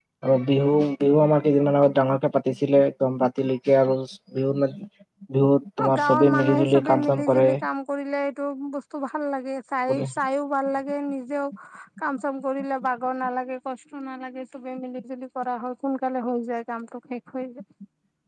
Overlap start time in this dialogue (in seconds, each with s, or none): 5.8 s